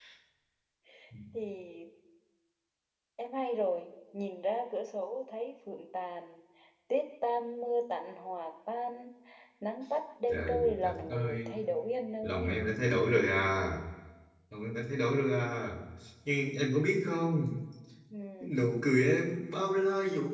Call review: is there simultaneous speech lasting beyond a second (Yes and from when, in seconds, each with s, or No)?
Yes, from 10.3 s